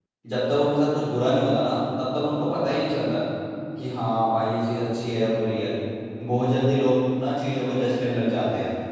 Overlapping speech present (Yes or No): No